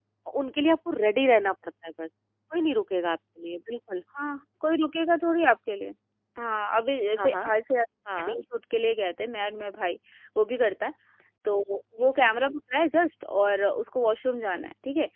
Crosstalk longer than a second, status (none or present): none